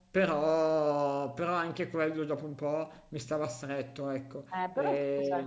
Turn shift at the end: Yes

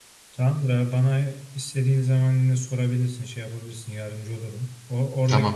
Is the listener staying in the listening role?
Yes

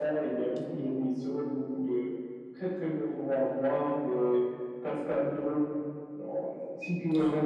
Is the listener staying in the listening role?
Yes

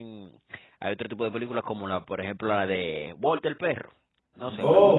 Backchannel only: Yes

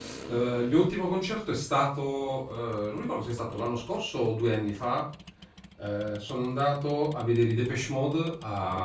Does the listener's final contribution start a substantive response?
No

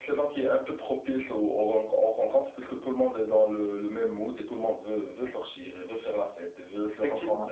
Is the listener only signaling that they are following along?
Yes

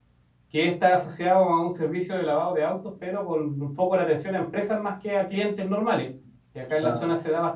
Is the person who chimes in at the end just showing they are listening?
Yes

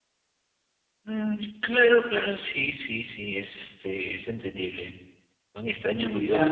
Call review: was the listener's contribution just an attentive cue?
No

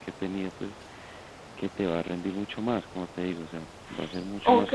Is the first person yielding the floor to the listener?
Yes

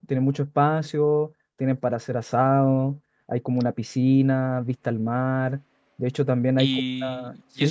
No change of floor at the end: No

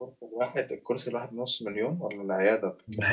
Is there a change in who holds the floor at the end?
Yes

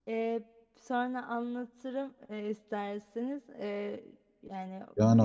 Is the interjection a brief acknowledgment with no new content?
No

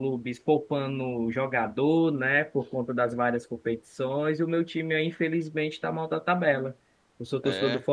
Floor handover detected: No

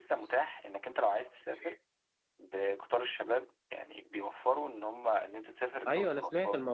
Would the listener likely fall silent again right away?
No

